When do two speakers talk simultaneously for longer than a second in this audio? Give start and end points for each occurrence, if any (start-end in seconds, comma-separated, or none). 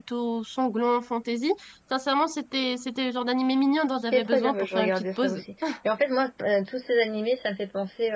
4.1-5.4